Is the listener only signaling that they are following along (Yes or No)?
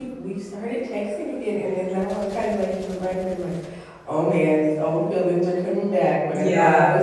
Yes